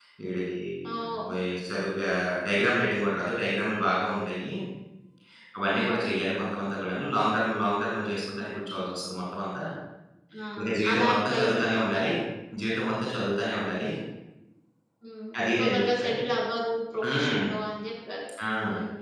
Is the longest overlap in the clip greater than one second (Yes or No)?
Yes